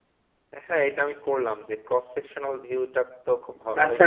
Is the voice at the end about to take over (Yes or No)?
Yes